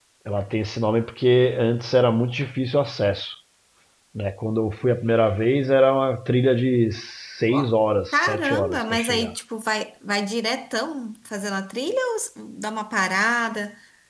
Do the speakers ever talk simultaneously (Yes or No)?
Yes